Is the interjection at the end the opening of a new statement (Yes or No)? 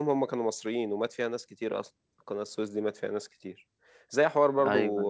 No